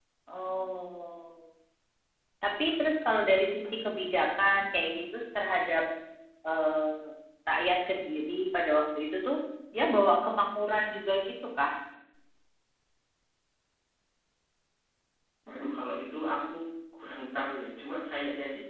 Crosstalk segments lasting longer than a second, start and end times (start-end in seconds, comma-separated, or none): none